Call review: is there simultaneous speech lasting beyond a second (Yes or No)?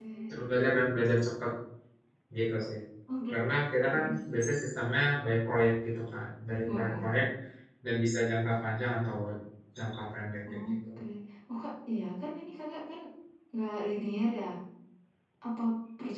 No